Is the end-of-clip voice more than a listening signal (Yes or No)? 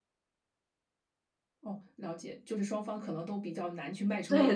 Yes